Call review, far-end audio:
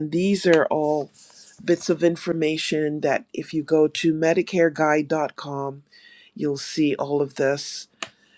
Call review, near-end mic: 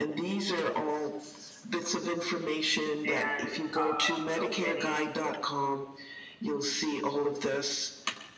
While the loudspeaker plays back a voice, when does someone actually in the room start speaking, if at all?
3 s

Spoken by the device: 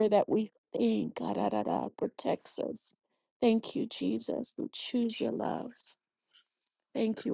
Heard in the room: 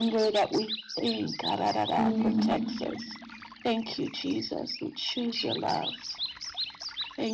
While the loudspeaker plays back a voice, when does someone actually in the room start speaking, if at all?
2 s

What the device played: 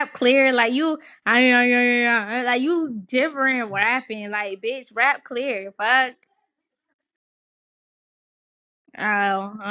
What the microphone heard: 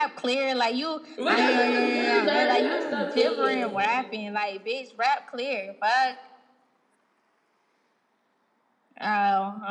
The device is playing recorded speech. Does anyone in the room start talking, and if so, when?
1 s

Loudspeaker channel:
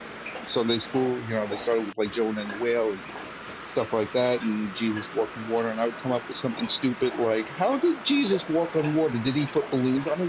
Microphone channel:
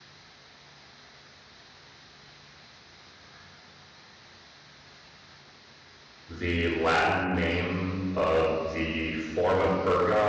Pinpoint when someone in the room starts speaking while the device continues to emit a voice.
6 s

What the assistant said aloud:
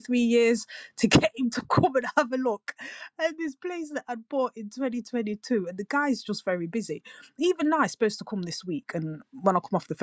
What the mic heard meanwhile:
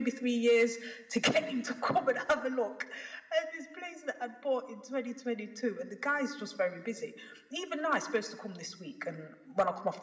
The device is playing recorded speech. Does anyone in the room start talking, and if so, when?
none

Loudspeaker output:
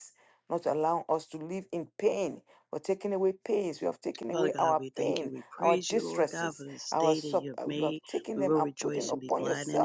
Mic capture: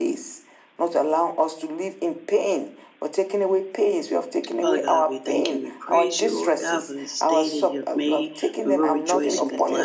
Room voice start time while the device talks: 9 s

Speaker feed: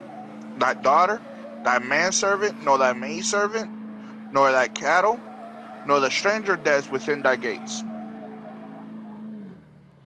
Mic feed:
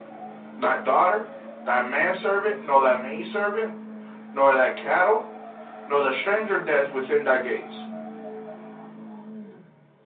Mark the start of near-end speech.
none

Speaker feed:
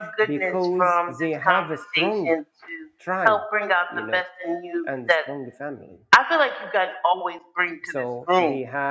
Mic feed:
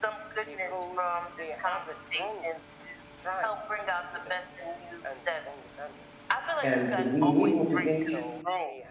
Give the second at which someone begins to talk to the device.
7 s

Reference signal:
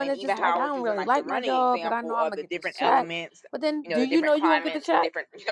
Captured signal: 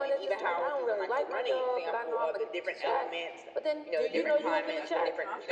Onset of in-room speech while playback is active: 4 s

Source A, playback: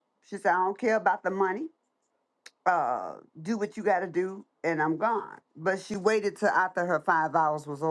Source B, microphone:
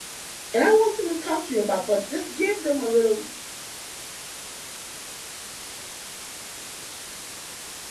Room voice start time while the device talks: 1 s

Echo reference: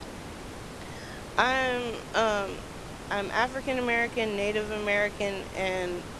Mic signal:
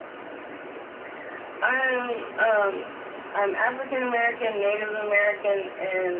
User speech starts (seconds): none

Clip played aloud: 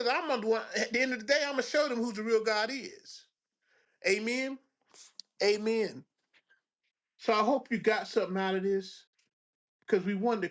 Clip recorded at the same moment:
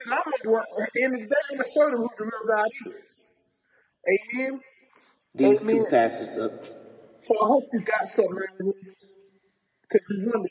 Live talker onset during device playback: 5 s

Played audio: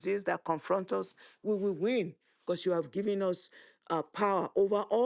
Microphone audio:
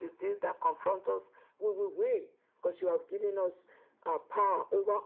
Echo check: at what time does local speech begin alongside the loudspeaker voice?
none

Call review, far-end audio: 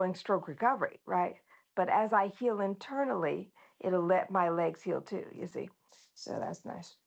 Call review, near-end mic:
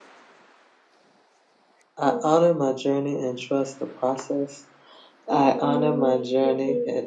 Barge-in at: 2 s

